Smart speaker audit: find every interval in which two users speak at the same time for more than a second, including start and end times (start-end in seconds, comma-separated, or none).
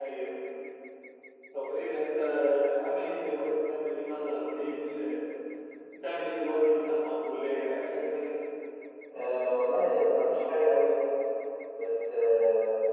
none